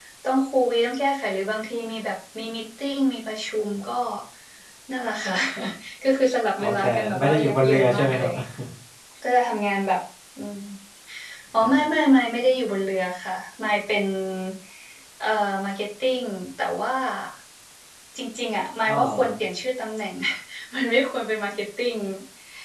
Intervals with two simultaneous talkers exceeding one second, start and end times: 6.6-8.3

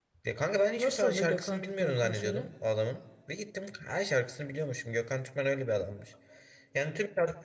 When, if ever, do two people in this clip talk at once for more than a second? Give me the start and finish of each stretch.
0.8-2.5

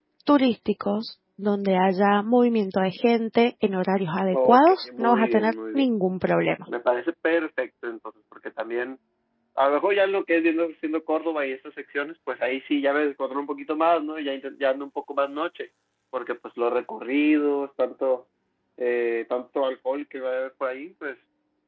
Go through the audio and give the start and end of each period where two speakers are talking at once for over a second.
4.3-5.9

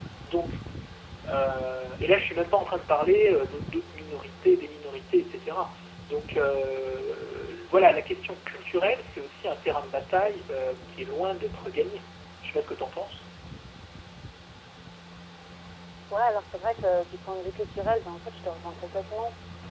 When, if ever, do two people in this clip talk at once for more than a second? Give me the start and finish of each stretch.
none

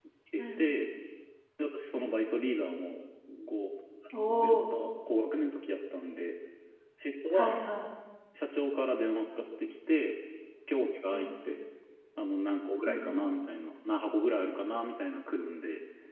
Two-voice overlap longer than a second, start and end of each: none

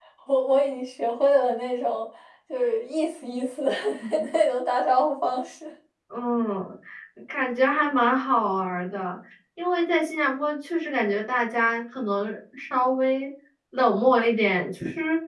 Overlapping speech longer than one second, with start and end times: none

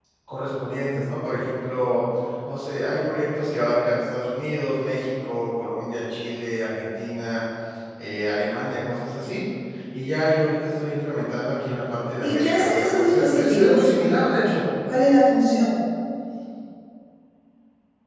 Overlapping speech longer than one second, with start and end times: 12.2-13.8

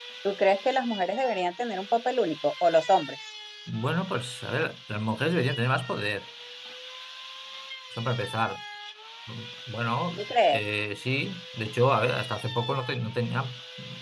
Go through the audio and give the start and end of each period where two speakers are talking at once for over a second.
none

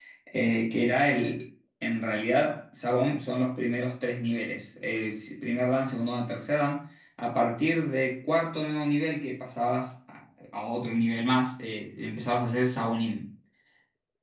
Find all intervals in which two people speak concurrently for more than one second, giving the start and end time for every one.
none

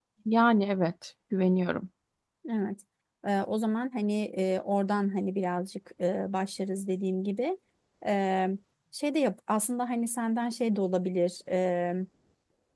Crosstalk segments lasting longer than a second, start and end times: none

